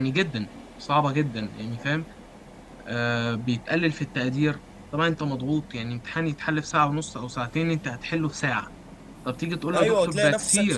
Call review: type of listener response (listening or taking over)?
taking over